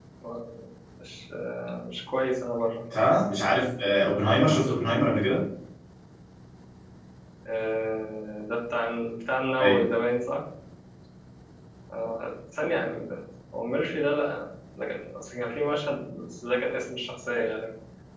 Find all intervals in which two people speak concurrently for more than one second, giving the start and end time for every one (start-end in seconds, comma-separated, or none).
none